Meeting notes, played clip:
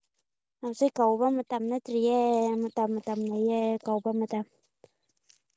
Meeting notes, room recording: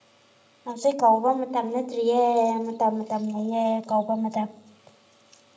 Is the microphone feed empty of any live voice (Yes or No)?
Yes